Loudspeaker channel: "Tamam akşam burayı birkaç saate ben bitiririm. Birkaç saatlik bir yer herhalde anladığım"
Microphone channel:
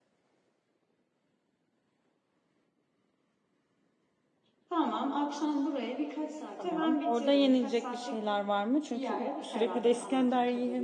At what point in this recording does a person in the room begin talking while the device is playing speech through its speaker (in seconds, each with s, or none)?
6.6 s